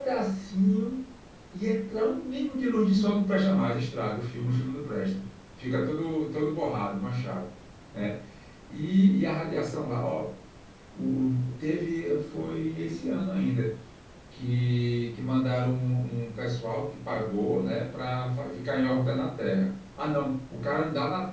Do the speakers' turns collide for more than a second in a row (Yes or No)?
No